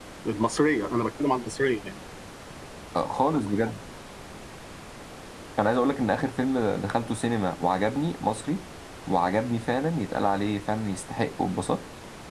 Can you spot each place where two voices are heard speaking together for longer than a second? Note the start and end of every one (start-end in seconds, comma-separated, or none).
none